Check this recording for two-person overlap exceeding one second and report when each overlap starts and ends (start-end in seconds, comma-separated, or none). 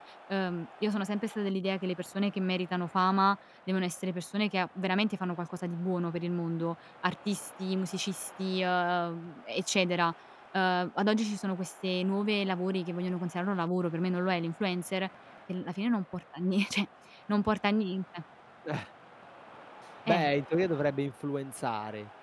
none